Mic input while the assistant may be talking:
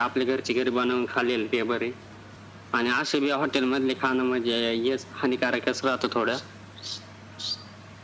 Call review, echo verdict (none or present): present